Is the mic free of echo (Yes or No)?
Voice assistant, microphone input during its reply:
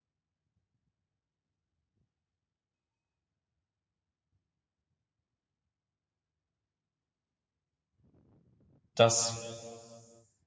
Yes